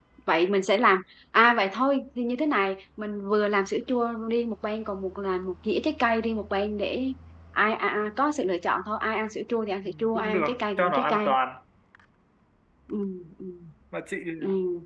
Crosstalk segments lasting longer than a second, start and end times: 9.8-11.2

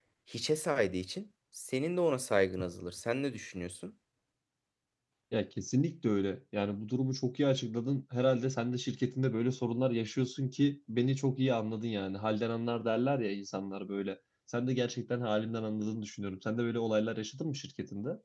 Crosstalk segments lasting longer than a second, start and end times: none

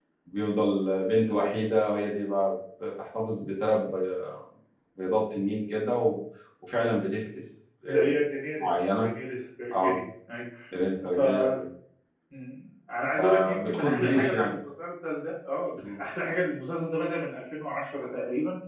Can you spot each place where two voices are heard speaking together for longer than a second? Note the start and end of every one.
13.2-14.5

